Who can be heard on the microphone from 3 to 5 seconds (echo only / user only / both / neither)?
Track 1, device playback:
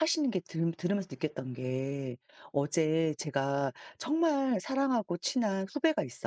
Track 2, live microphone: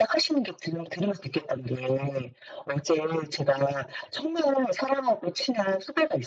echo only